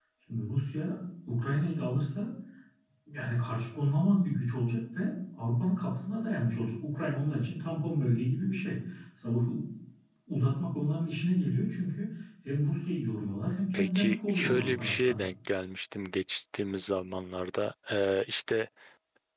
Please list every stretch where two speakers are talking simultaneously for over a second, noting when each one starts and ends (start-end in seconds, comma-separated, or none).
13.7-15.1